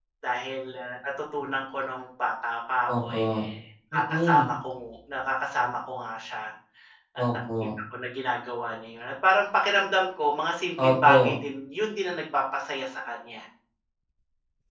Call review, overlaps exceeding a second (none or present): none